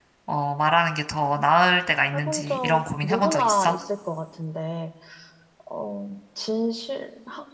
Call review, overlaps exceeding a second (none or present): present